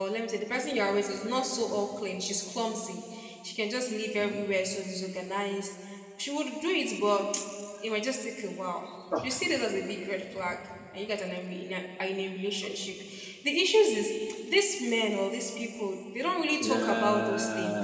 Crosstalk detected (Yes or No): Yes